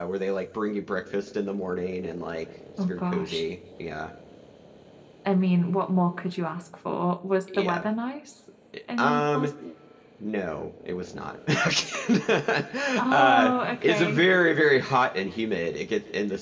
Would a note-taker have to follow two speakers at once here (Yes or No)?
Yes